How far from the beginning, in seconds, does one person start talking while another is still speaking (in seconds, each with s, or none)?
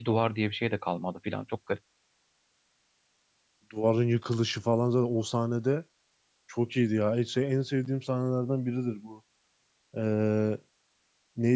none